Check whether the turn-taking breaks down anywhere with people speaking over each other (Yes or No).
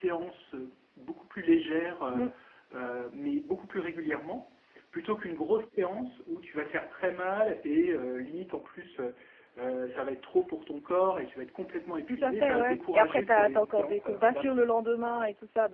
Yes